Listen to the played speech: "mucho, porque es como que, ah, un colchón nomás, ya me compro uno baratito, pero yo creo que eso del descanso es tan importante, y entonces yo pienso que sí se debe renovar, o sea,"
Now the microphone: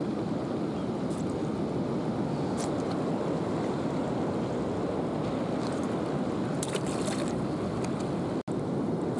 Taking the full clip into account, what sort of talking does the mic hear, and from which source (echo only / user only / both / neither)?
neither